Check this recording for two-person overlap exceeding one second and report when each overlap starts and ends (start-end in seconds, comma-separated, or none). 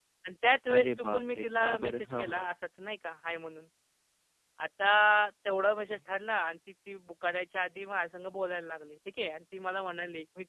0.8-2.4